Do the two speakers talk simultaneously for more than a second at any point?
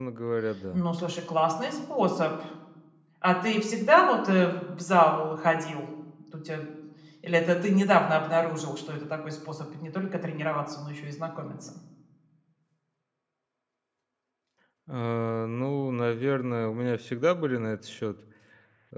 No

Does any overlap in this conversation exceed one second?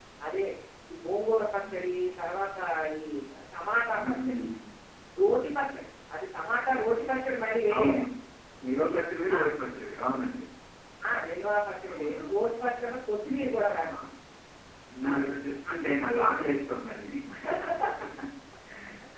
No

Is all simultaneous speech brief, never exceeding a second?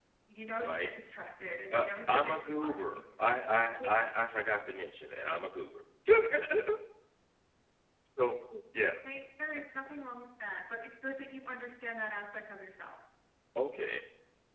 No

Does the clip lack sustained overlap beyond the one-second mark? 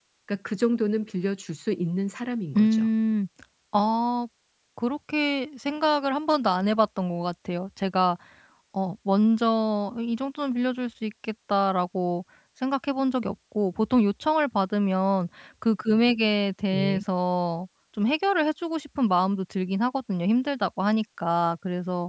Yes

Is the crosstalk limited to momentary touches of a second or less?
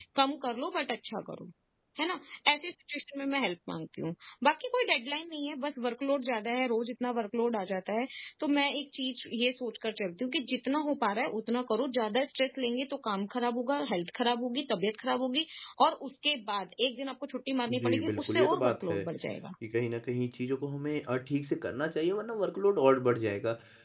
No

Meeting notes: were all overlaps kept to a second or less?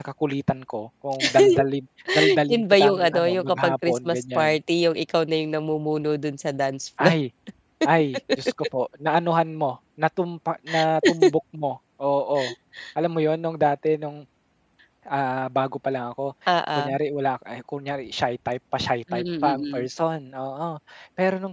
No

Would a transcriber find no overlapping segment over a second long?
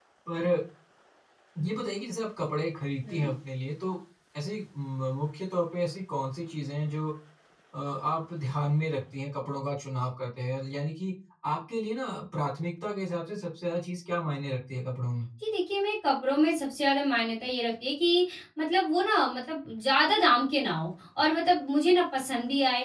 Yes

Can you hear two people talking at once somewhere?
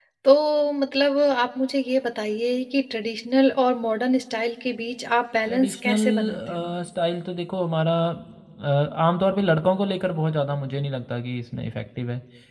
Yes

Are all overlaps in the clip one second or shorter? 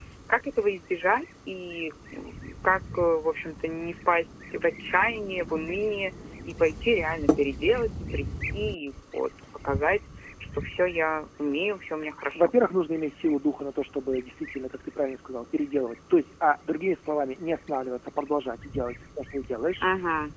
Yes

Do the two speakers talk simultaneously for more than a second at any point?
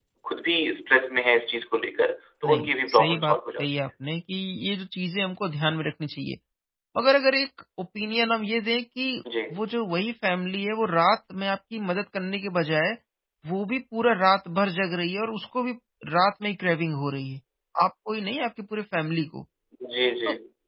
Yes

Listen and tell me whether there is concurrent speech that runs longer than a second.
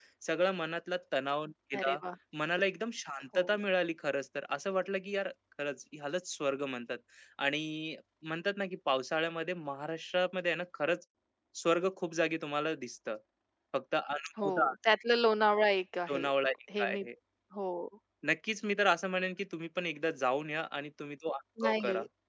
No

